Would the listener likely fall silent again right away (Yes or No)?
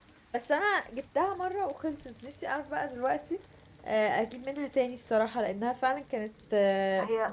No